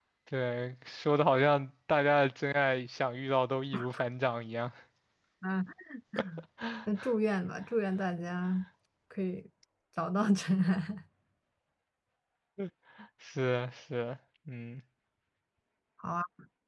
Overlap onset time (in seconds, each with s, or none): none